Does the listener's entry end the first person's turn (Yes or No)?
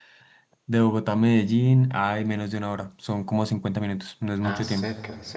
Yes